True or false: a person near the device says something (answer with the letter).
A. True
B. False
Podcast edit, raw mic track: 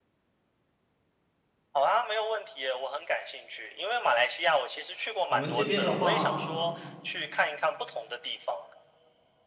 A